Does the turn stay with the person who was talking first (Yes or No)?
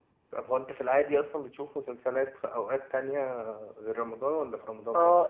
No